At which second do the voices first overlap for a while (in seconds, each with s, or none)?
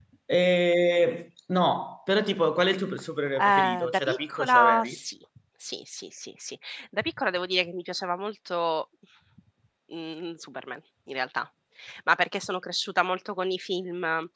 3.4 s